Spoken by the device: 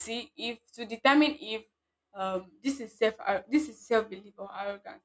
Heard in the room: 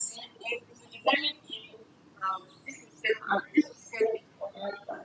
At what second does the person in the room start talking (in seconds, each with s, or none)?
none